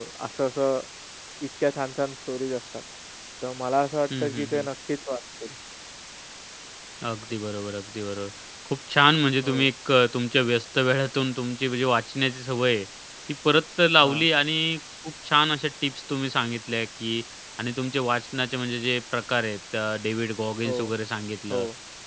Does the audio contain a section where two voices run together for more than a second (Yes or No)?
No